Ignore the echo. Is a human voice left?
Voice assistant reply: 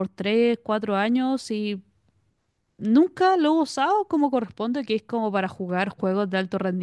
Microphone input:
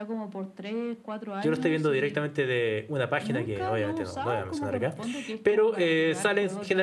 Yes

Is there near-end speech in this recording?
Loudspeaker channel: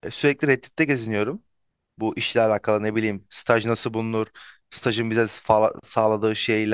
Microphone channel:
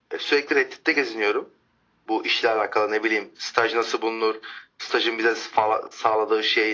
No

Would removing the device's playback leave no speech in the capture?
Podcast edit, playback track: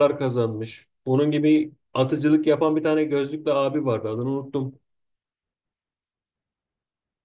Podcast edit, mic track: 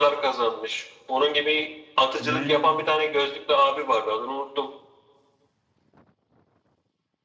No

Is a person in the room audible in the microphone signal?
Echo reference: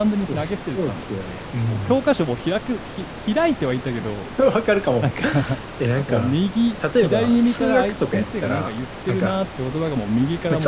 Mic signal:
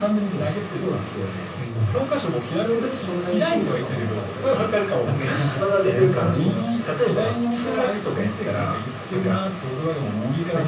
Yes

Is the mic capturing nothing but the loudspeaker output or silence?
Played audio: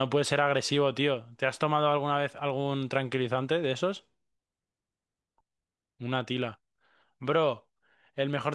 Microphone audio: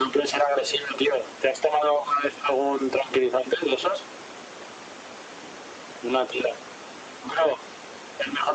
Yes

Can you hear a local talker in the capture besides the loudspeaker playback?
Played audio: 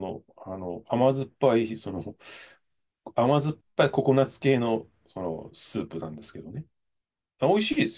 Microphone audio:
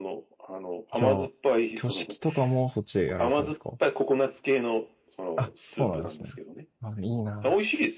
Yes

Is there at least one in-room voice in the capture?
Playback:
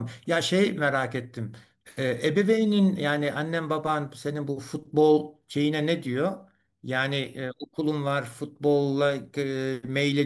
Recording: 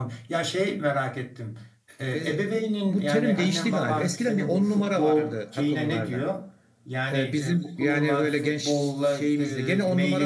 Yes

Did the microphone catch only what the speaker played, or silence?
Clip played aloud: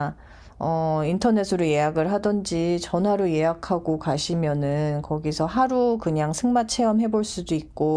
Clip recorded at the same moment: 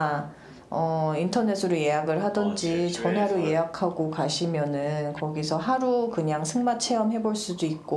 No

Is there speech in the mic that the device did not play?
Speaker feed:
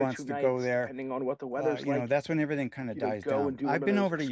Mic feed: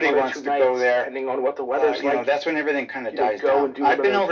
No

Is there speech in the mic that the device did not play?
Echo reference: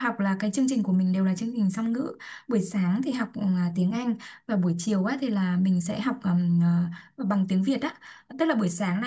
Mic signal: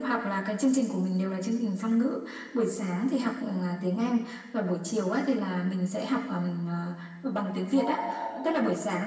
Yes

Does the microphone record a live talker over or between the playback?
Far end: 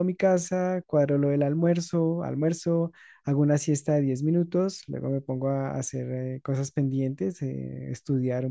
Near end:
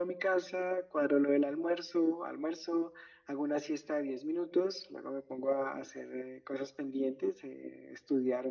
No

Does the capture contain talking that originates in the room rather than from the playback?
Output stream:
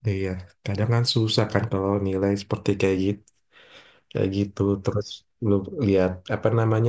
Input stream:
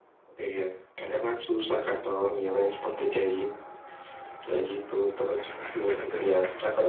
No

